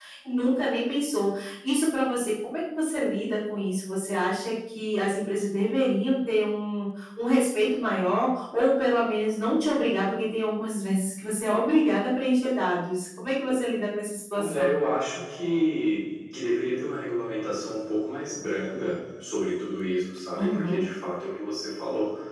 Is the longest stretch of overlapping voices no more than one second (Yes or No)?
Yes